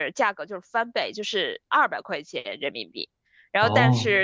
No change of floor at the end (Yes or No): Yes